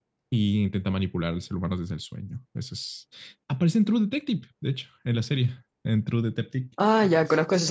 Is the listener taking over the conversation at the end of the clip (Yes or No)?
Yes